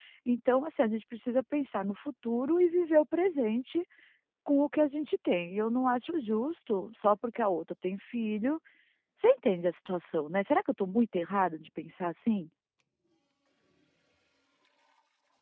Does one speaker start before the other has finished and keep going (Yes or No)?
No